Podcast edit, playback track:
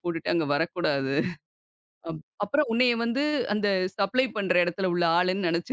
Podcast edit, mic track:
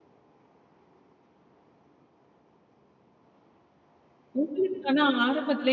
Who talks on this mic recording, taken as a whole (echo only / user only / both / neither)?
user only